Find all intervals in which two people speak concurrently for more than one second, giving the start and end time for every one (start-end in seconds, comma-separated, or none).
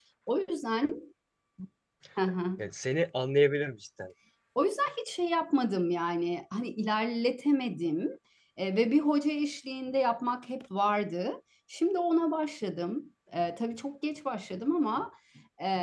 none